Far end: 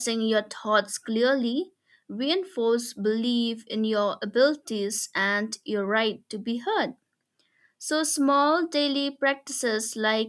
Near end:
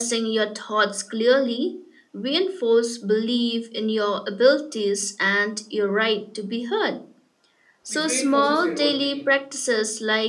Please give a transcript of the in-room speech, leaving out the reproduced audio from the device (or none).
which reinforces your own belief.